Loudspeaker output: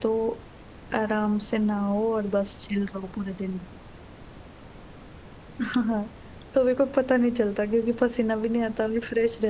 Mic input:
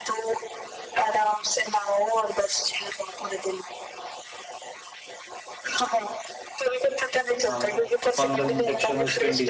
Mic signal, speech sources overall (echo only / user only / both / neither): both